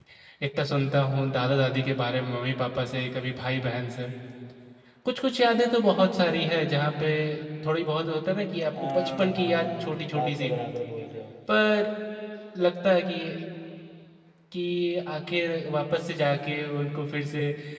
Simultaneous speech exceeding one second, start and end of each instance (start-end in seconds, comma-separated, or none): 8.8-10.5